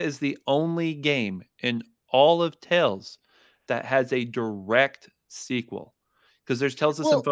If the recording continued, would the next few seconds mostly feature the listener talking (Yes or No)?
No